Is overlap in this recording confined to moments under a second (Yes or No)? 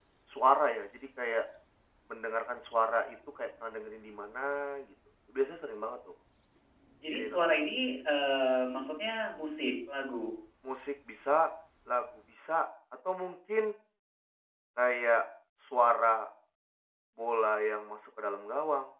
Yes